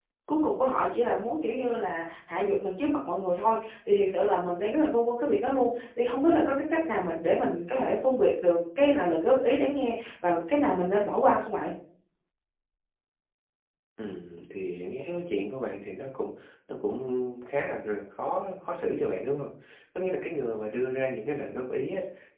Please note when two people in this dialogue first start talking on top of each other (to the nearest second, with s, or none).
none